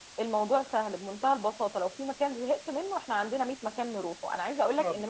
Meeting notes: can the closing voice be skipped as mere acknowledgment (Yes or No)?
Yes